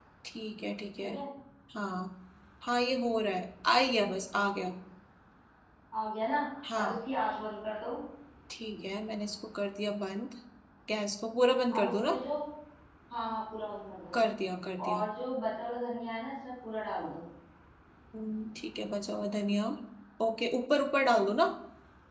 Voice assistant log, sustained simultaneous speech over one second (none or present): none